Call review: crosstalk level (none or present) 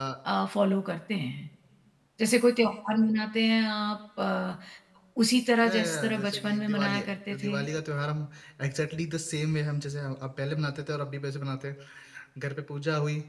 present